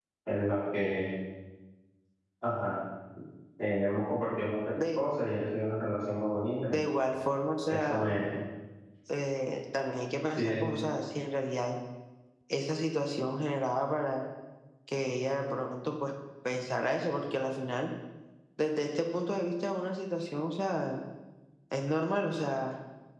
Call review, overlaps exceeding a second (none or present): none